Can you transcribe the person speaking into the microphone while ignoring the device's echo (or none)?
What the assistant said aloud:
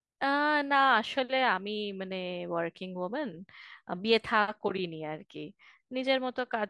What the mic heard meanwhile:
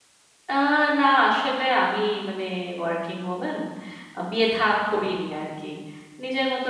none